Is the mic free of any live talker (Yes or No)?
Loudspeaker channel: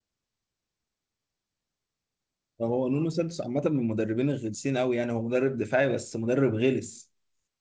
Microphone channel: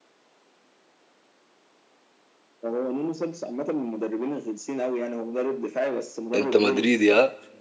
No